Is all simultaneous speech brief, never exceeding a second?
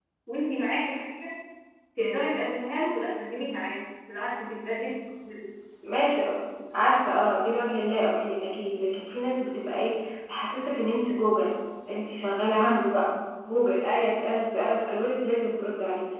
Yes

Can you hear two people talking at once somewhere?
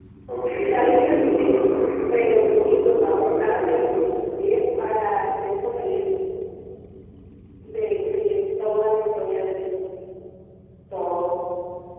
Yes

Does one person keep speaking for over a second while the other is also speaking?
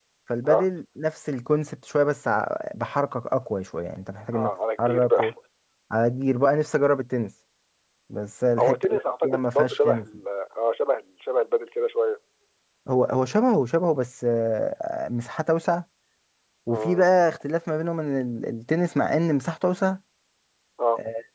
Yes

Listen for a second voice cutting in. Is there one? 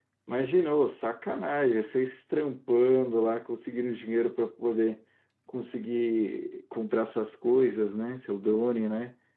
No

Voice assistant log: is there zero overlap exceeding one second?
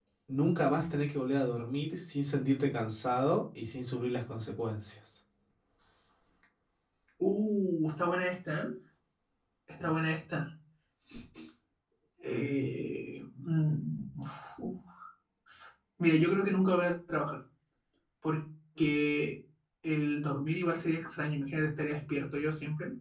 Yes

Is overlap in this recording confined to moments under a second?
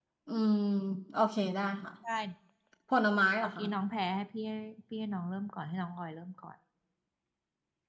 Yes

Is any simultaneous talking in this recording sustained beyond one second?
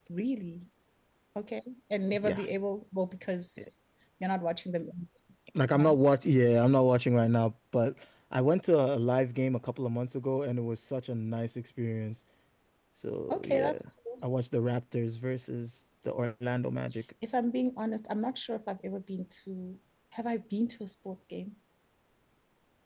No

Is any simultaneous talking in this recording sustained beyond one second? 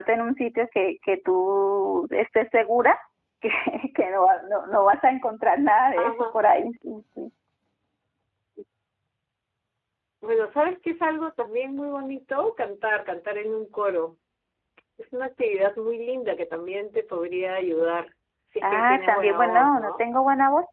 Yes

